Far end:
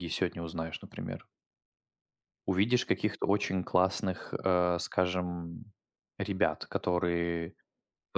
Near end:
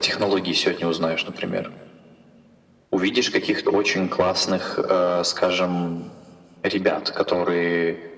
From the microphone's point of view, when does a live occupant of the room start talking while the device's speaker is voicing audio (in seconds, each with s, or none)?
none